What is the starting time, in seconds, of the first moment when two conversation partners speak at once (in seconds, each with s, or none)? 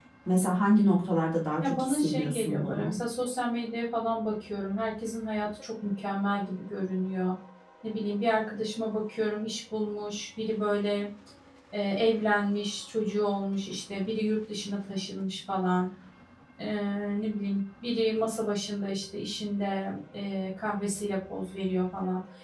1.6 s